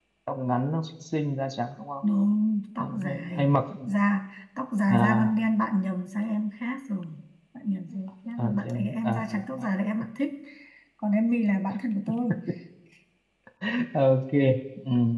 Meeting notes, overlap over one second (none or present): present